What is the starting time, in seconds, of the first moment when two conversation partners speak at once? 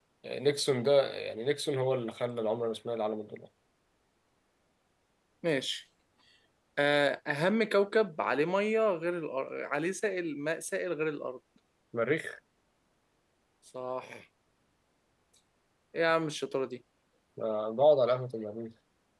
none

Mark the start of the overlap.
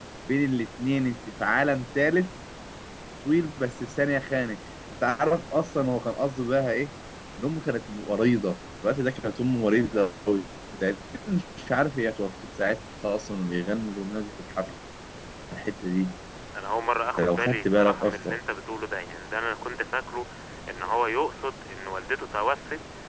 17.2 s

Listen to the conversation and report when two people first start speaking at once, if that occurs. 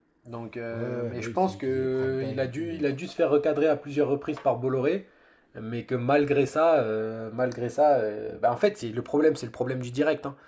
0.7 s

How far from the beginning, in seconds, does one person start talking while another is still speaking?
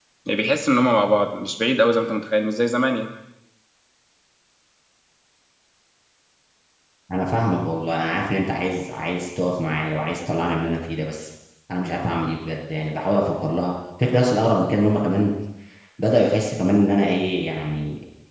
none

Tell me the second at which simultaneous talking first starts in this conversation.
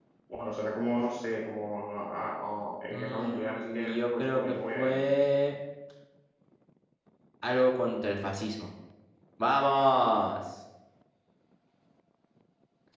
2.9 s

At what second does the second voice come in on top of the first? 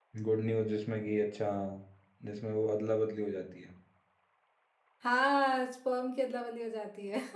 none

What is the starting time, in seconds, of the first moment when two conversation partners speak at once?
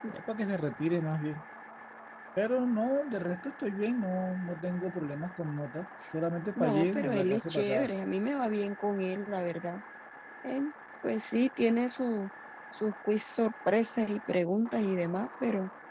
6.6 s

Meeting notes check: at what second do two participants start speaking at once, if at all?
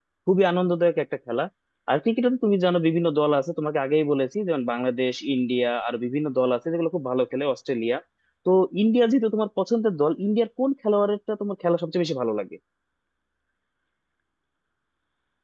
none

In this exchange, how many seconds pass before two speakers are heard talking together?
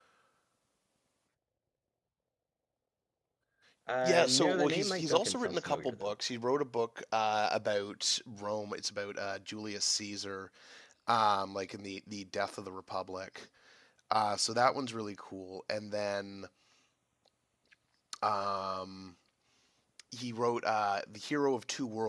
4.0 s

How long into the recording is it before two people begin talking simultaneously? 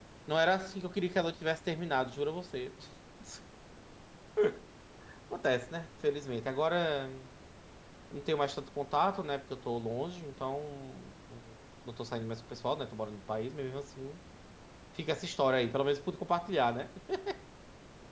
none

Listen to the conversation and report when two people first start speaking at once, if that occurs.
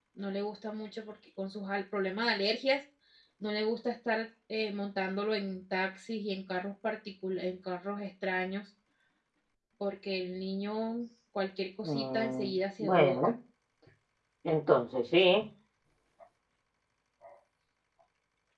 11.8 s

